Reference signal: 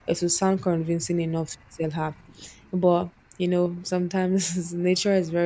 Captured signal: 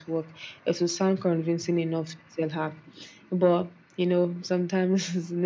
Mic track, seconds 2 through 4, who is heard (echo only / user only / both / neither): echo only